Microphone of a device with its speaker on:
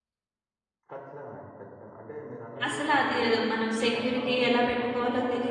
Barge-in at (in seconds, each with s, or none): 2.7 s